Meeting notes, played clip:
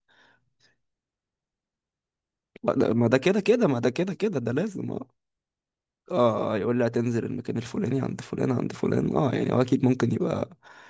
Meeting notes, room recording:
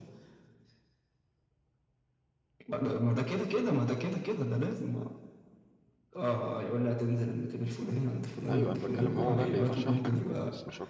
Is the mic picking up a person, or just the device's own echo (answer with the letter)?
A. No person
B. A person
B